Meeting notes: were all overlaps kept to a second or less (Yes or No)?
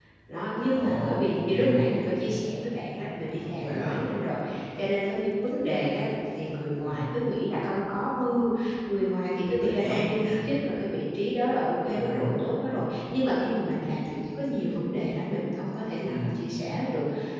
No